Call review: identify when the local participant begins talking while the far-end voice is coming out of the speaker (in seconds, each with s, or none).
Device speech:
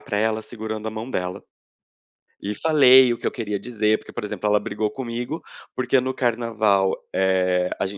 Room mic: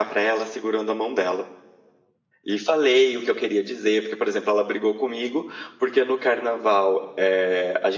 none